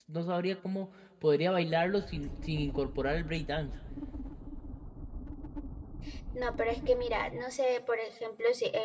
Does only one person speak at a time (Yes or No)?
Yes